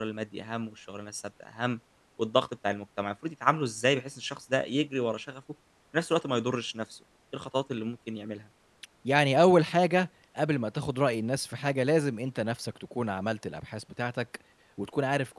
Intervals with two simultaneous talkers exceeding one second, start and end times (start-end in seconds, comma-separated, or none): none